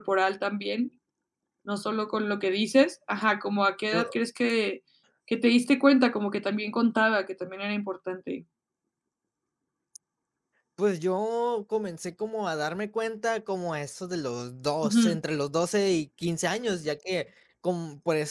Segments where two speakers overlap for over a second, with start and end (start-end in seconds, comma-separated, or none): none